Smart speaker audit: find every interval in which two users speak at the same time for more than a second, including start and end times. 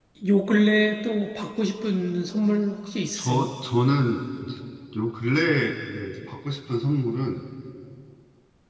none

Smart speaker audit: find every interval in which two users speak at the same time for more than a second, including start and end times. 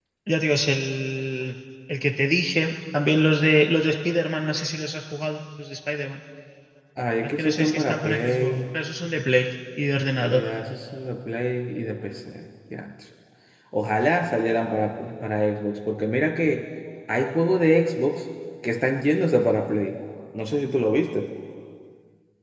7.2-8.5

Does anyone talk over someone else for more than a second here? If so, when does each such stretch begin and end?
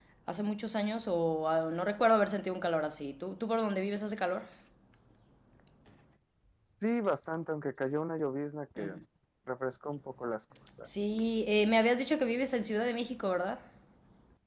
none

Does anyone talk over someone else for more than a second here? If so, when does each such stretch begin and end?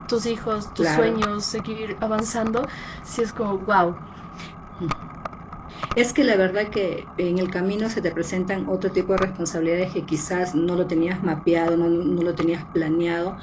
none

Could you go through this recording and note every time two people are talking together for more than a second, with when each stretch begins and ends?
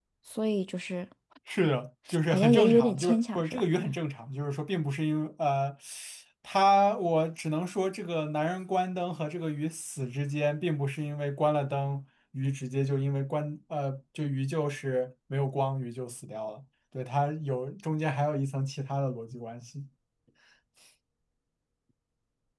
2.3-3.6

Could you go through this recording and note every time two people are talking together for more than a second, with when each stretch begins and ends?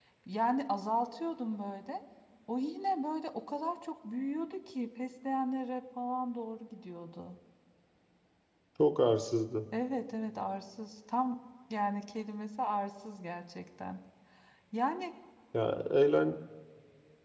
none

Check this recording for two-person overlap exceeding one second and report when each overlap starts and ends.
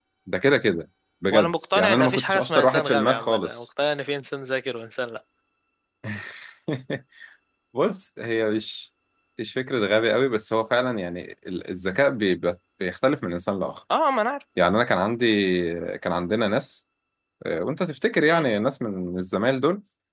1.3-3.6

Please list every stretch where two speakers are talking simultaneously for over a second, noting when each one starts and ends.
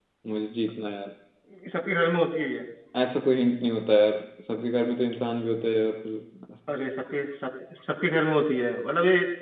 none

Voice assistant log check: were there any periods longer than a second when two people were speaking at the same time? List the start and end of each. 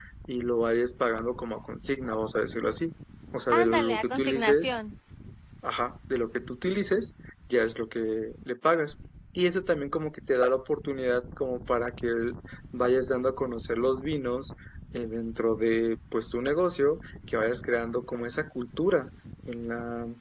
3.5-4.7

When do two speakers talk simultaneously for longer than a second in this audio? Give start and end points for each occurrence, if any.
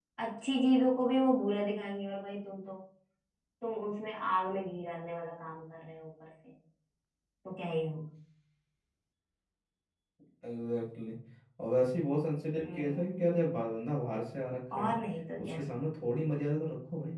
none

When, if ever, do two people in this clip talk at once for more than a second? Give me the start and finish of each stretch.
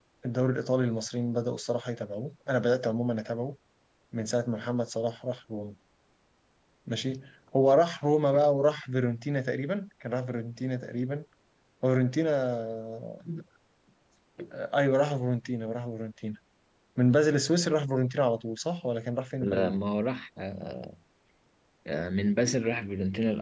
none

